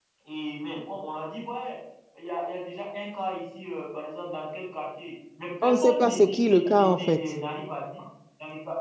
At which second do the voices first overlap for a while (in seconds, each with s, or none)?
5.6 s